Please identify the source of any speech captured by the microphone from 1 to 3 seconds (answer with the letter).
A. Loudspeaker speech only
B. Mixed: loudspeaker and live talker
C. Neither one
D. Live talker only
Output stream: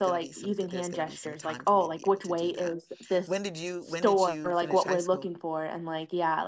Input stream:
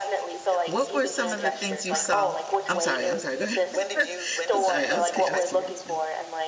B